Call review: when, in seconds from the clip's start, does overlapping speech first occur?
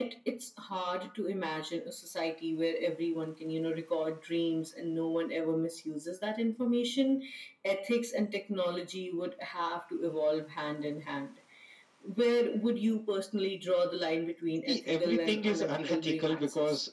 14.7 s

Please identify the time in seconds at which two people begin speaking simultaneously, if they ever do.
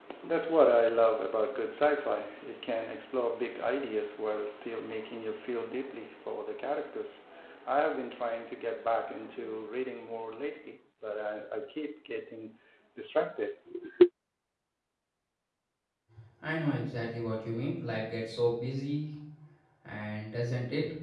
none

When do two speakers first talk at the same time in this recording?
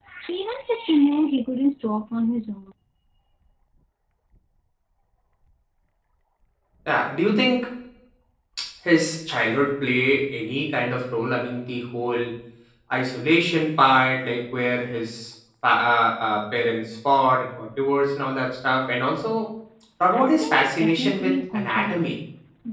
20.1 s

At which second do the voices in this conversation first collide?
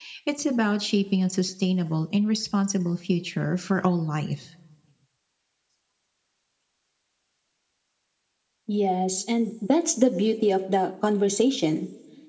none

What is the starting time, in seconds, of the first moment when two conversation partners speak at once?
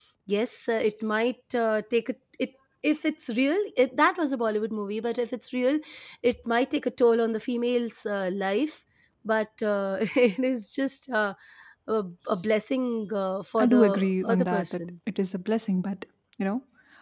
13.6 s

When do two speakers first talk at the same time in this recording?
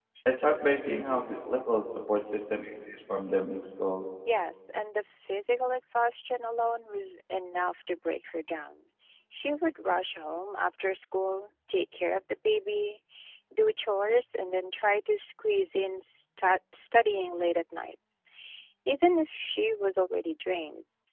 none

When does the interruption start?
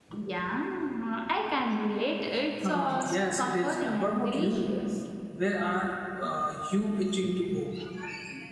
2.6 s

